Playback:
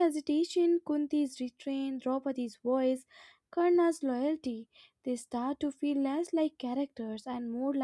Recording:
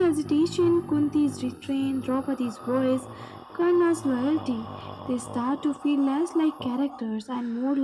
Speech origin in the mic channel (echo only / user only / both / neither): echo only